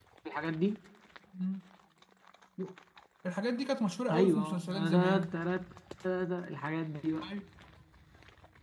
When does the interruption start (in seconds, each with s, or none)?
4.1 s